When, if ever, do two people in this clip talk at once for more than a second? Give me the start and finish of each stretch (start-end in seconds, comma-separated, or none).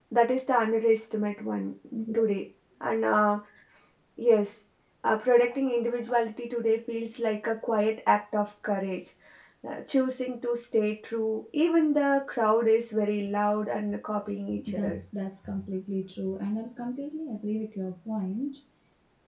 none